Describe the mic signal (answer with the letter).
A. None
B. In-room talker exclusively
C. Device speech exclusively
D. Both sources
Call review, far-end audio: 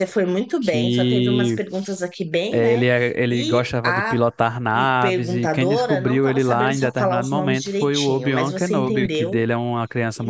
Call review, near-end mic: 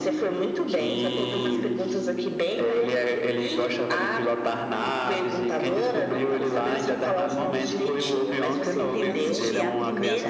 D